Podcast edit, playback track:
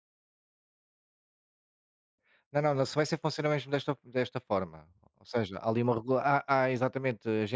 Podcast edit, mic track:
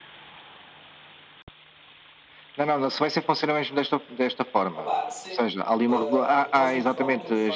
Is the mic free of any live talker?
No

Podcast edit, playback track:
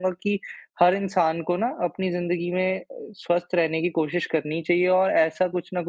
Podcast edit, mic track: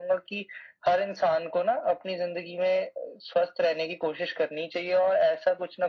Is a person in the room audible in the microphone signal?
No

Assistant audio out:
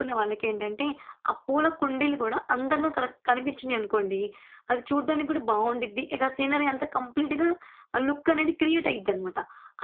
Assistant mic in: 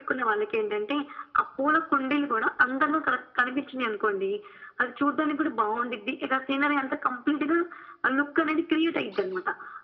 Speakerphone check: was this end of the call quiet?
Yes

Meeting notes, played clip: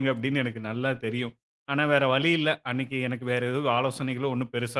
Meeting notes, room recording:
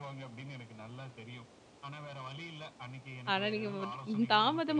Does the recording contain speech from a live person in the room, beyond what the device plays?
Yes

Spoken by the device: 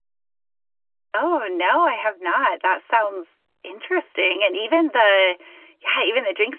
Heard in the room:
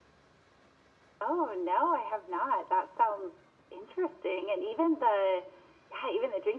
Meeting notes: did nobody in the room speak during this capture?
Yes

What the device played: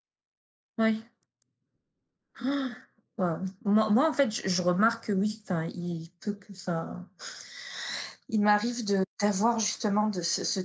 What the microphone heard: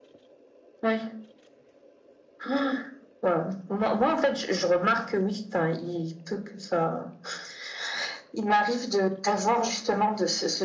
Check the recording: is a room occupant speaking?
No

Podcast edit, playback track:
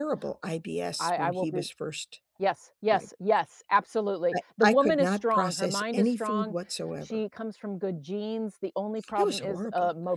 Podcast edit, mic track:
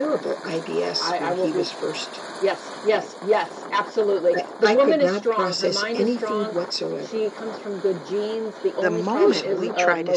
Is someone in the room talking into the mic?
Yes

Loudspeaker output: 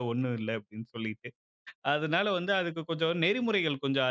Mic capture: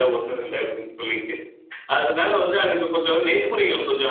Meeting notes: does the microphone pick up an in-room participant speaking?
No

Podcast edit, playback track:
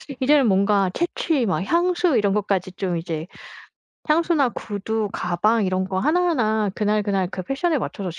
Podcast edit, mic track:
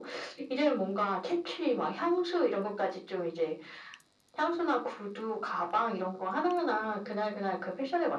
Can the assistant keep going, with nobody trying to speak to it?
Yes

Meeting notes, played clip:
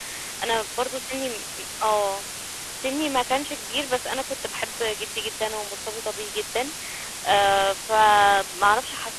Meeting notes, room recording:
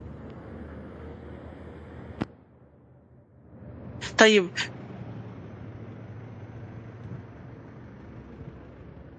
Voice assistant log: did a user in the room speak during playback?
Yes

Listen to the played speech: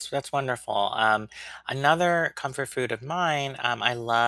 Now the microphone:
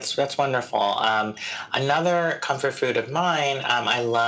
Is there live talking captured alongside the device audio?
No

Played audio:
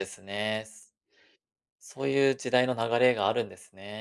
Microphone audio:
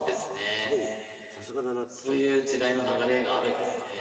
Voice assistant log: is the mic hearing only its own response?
No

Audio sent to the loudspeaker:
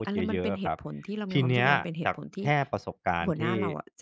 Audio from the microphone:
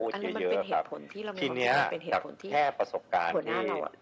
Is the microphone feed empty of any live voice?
Yes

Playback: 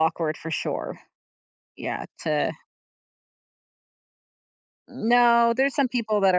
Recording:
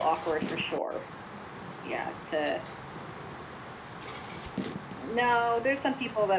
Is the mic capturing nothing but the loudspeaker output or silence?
Yes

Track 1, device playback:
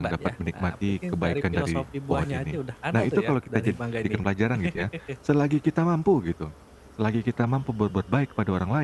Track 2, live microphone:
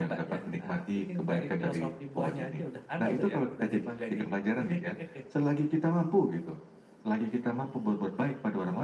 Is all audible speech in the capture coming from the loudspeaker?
Yes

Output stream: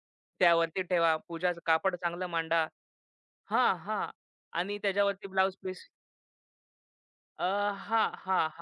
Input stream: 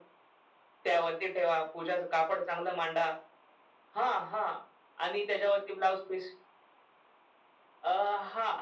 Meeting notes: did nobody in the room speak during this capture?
Yes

